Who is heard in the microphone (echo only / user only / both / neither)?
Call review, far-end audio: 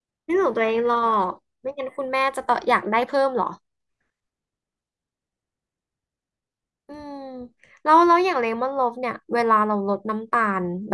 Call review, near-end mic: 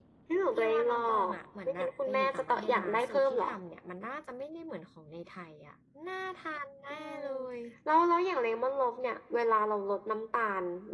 both